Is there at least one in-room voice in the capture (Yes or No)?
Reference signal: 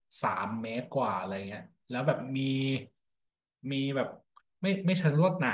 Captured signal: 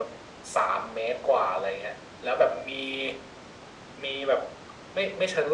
No